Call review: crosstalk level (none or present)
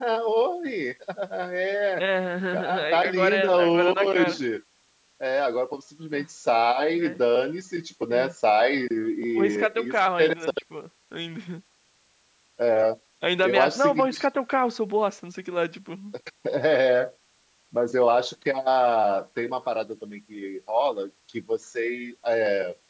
present